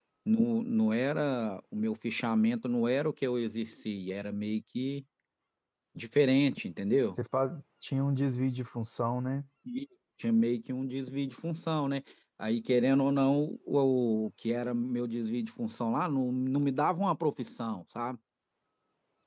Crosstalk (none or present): none